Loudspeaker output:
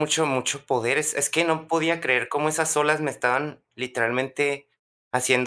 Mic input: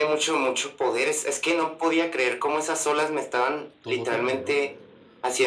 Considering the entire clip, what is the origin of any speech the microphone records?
both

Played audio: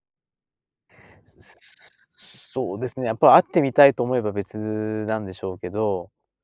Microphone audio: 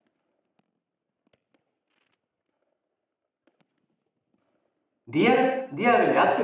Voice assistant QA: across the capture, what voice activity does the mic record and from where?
user only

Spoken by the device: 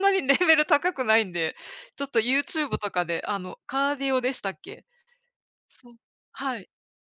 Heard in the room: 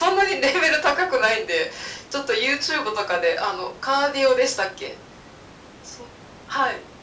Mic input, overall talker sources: echo only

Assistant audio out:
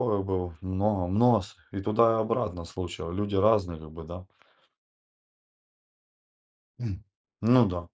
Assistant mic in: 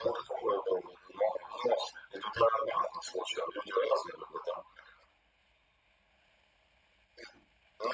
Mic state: echo only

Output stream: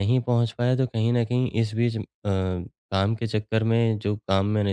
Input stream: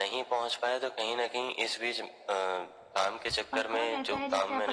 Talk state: both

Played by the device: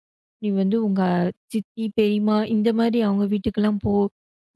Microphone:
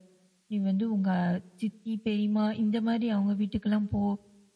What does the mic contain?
echo only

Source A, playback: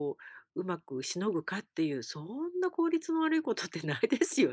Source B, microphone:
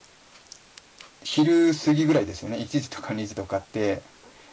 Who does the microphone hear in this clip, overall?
user only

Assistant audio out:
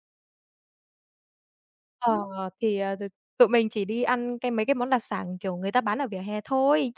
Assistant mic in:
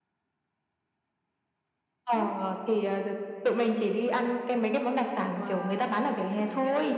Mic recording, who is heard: both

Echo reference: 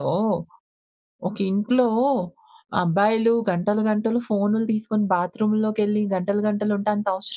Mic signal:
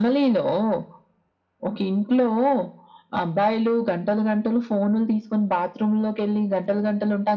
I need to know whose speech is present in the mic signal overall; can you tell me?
echo only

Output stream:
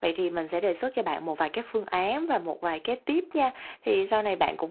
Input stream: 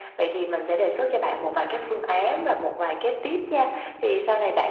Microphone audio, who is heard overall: echo only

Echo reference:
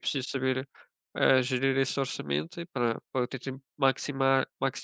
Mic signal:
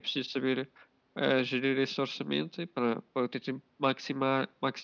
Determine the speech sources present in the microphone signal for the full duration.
echo only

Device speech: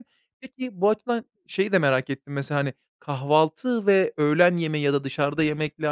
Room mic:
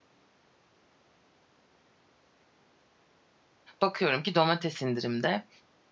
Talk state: user only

